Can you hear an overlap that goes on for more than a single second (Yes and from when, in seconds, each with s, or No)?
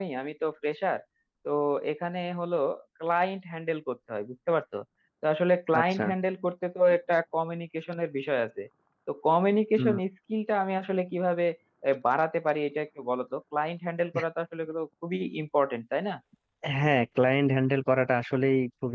No